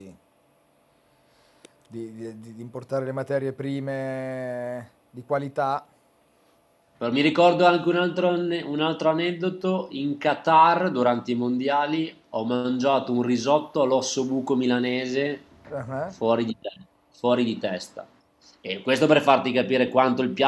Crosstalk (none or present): none